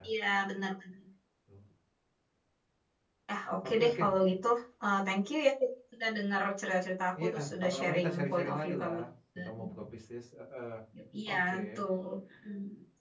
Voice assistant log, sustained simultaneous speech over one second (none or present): present